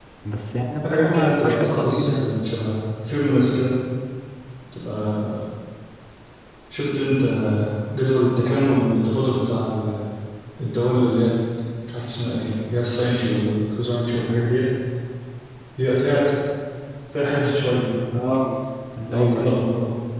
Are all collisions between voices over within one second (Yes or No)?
No